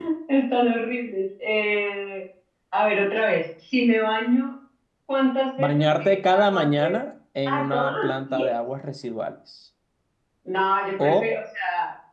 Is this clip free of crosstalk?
No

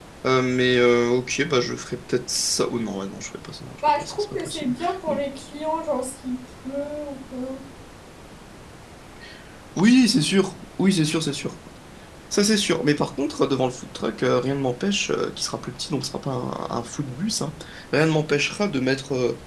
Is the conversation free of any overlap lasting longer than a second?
No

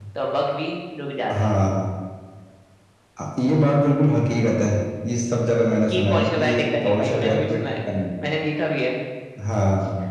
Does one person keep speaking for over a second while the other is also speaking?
Yes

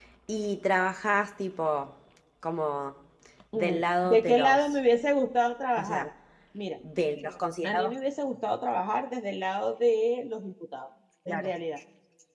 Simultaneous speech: Yes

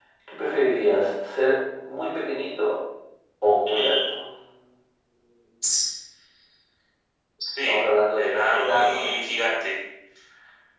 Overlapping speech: Yes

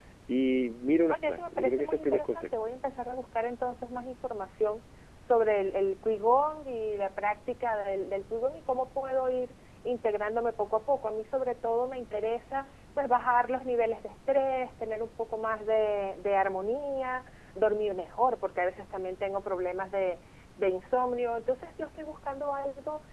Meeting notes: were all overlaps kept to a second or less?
No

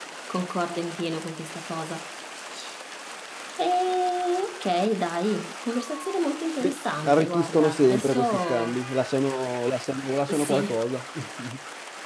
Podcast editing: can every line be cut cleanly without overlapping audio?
No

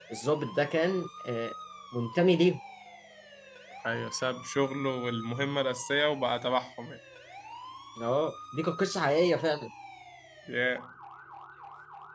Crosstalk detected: No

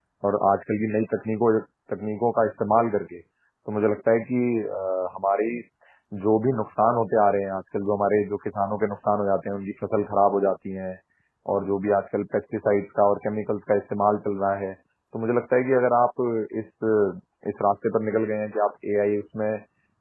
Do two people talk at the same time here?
No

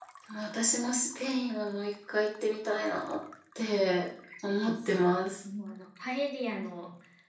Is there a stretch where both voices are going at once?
No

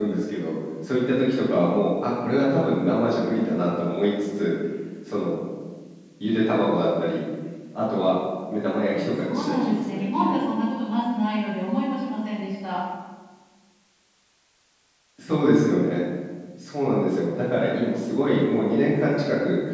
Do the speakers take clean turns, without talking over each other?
No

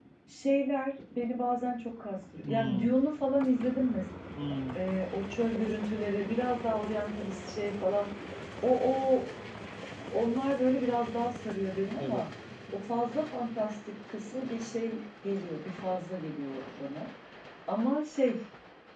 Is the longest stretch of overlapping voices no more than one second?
Yes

